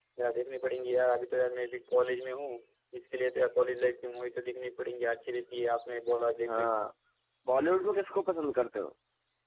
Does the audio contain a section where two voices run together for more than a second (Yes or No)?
No